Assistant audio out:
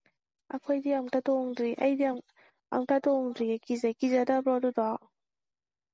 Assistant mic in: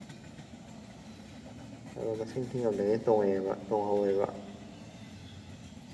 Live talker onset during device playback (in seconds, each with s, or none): 2.0 s